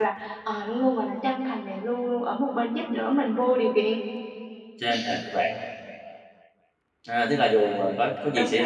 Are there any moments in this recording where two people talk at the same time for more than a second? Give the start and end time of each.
none

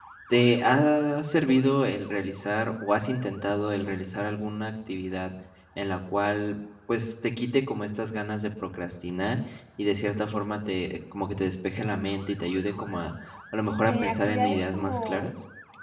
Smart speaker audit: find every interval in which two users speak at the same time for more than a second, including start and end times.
13.8-15.3

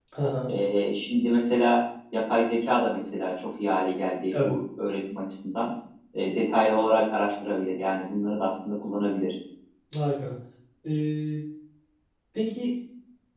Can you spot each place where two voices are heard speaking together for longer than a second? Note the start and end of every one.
none

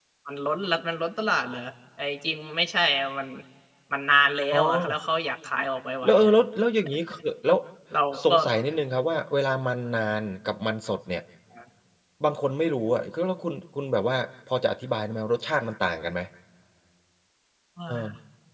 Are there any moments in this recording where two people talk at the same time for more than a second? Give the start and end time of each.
none

